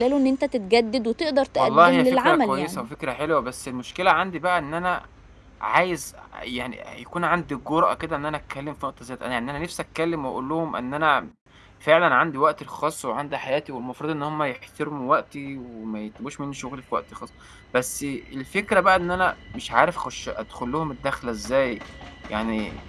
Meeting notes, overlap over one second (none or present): present